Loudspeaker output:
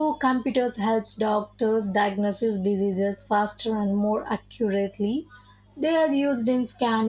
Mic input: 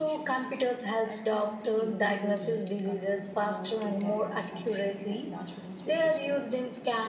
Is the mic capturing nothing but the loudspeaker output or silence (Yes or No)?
No